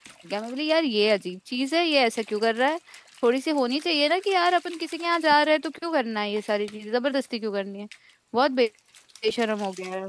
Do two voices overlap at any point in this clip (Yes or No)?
No